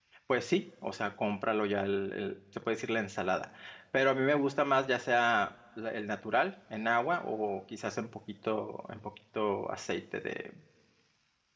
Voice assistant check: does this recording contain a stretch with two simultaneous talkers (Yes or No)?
No